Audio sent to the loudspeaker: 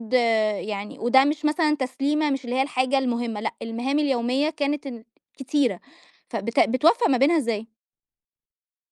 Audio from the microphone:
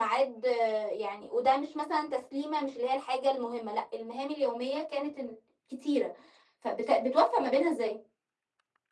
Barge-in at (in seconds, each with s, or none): none